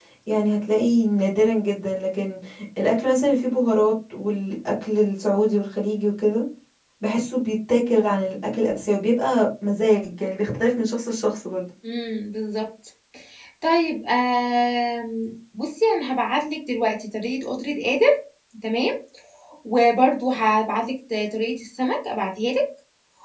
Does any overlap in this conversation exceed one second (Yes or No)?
No